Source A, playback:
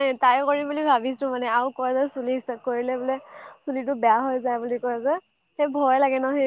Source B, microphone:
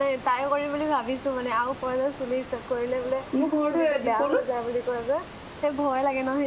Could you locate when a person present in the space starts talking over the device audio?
3.4 s

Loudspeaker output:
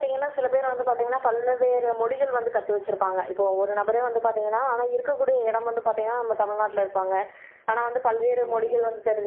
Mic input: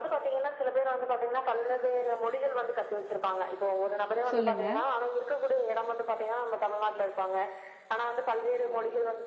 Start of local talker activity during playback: 4.3 s

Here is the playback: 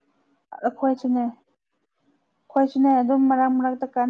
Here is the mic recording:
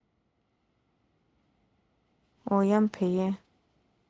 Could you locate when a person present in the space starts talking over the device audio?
2.5 s

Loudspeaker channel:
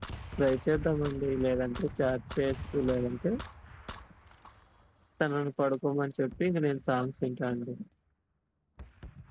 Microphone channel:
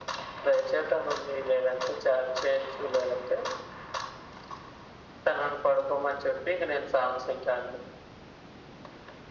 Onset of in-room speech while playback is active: none

